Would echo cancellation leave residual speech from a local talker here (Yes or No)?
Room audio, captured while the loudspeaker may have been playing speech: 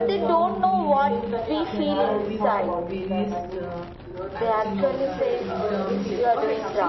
Yes